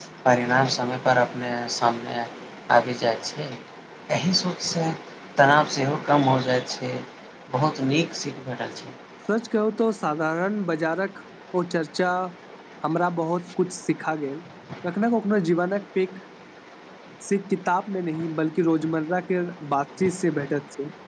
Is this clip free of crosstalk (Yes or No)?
Yes